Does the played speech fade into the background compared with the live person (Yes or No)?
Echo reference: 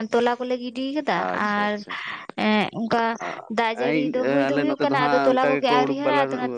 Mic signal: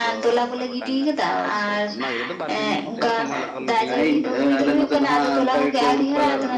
No